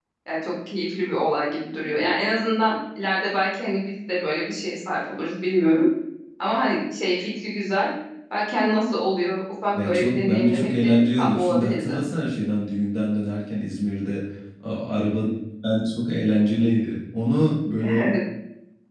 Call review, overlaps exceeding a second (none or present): present